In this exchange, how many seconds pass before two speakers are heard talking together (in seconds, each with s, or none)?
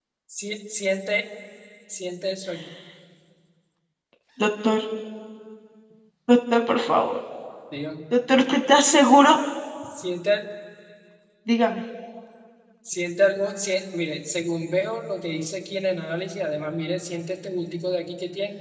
none